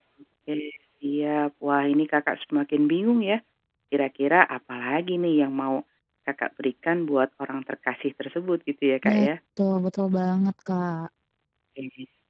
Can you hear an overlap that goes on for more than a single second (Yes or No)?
No